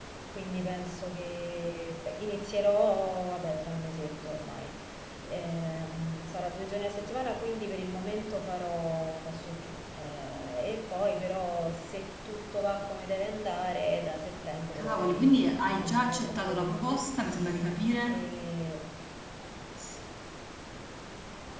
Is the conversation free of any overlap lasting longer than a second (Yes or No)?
No